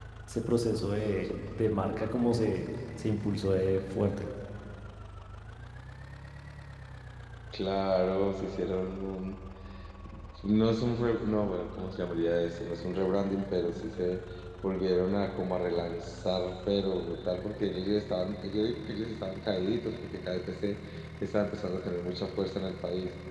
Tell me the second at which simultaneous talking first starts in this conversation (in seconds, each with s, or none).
none